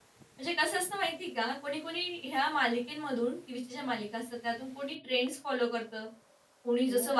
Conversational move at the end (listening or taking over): listening